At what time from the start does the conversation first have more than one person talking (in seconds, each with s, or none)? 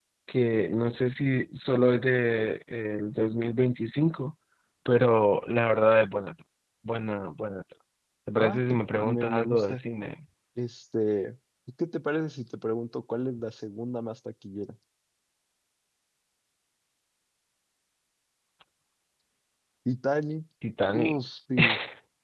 8.4 s